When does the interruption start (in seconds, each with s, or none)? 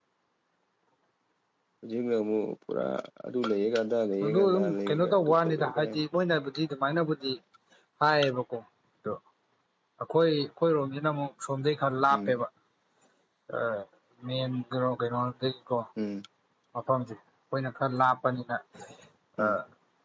4.2 s